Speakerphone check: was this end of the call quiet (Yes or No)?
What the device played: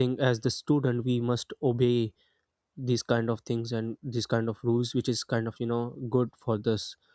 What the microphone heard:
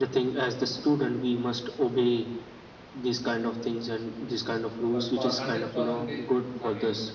No